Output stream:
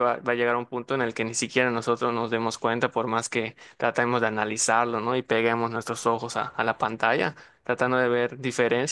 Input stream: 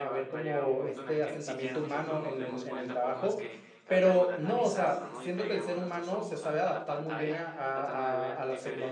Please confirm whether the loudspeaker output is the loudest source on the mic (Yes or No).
No